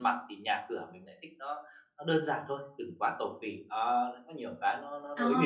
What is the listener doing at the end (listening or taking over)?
taking over